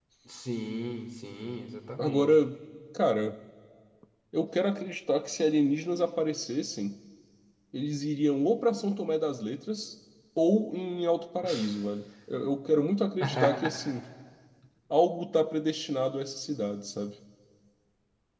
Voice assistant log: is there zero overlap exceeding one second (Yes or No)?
Yes